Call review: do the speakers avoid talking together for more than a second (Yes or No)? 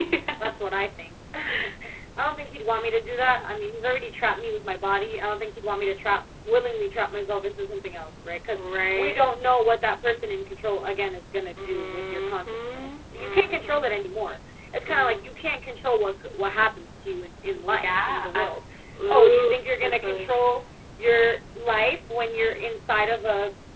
No